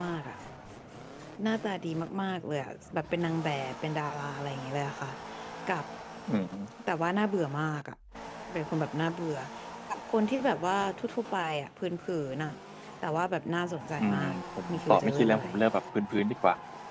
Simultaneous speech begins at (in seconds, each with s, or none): 14.0 s